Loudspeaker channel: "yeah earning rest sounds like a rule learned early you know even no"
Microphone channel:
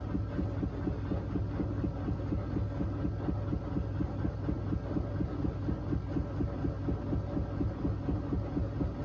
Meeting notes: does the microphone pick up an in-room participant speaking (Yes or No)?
No